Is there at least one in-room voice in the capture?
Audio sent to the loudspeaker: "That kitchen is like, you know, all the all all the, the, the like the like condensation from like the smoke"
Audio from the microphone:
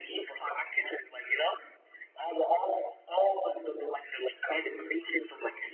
No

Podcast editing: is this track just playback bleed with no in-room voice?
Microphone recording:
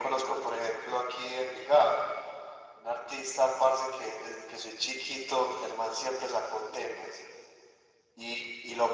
Yes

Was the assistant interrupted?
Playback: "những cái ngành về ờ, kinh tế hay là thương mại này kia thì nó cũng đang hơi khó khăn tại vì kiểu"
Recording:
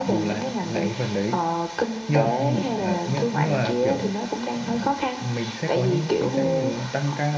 Yes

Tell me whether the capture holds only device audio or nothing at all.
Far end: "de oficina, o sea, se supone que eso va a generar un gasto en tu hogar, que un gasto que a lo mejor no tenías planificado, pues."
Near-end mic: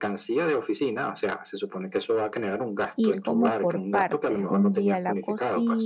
No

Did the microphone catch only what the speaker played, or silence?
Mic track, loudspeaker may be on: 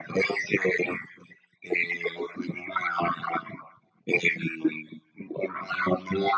Yes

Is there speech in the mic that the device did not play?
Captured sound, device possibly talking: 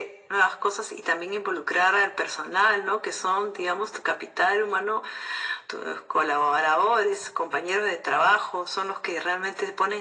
No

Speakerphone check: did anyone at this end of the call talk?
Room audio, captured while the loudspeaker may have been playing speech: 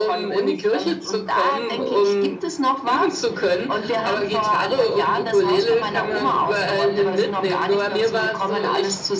No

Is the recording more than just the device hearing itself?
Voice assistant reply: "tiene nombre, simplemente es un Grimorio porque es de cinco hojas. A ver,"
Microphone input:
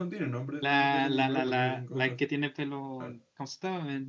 Yes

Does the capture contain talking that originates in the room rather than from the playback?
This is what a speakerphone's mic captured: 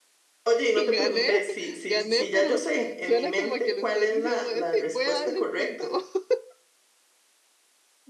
Yes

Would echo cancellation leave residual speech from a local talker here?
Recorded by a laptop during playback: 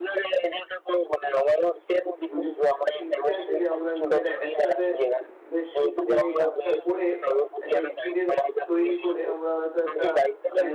Yes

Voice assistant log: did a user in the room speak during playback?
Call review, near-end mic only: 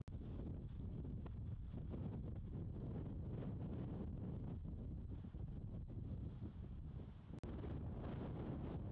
No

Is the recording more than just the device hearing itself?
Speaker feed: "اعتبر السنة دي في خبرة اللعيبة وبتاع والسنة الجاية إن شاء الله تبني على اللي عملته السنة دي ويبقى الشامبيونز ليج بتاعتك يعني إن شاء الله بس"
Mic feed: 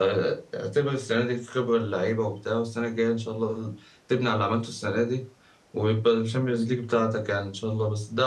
No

